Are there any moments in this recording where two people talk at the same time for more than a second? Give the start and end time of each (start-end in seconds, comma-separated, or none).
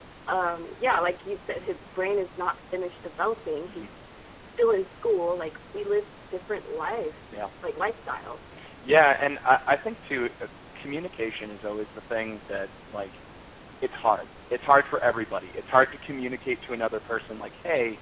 none